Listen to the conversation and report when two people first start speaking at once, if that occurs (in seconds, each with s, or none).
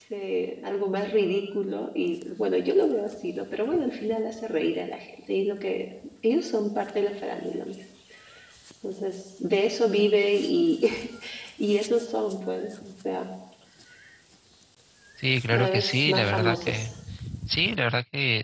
15.5 s